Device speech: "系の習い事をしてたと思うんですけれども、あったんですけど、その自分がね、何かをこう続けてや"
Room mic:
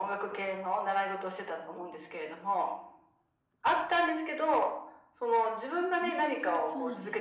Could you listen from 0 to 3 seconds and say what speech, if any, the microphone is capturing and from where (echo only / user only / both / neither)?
echo only